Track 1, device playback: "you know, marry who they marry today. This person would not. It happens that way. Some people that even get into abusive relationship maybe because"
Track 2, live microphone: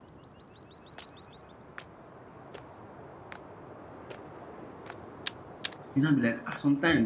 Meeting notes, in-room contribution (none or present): present